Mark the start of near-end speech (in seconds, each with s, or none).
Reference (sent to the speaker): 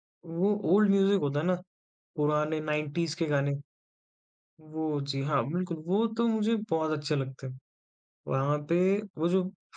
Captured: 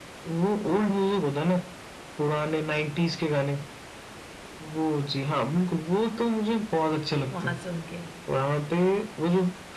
7.3 s